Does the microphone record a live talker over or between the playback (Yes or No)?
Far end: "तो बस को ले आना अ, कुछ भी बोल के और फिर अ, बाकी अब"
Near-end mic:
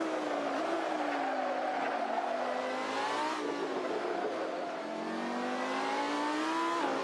No